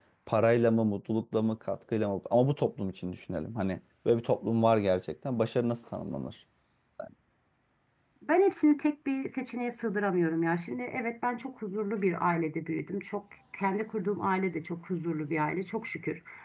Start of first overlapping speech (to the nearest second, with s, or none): none